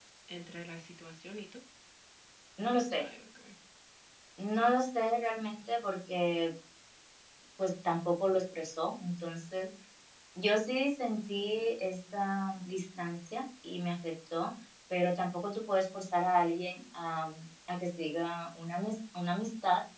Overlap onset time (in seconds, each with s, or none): none